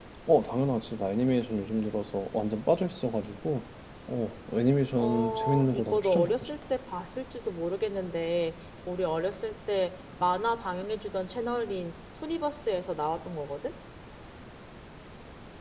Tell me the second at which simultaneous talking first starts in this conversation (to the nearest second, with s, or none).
5 s